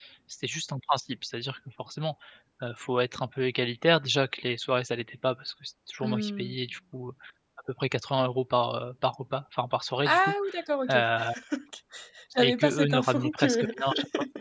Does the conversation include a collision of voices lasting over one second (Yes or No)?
Yes